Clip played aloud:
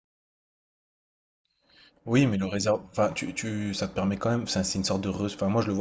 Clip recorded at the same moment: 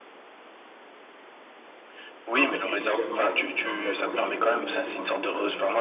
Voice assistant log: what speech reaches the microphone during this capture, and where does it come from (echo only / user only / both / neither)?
both